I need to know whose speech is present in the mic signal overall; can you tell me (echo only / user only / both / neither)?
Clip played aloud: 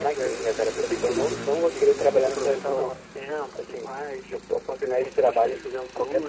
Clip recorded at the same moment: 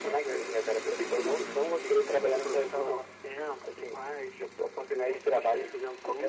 echo only